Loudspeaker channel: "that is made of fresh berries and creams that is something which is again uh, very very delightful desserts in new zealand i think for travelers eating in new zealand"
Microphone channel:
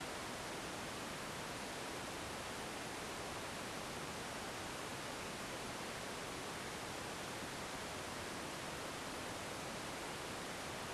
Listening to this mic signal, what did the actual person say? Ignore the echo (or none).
none